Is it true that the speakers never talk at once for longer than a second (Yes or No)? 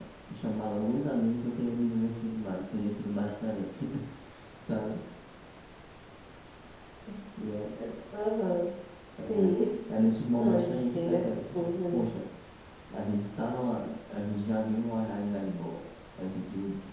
No